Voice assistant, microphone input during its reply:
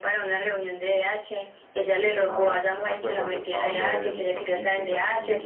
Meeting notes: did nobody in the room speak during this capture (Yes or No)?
No